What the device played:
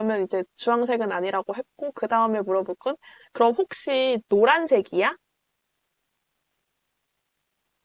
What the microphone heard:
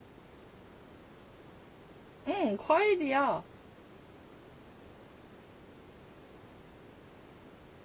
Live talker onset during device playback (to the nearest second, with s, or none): 2 s